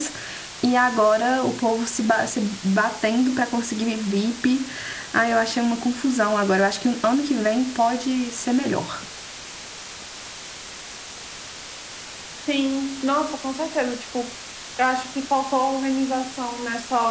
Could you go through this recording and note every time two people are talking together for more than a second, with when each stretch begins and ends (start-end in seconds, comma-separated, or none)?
none